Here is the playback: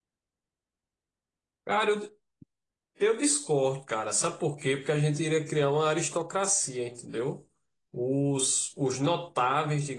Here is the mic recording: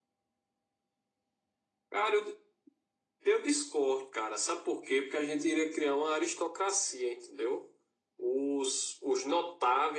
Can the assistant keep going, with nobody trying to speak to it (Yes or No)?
Yes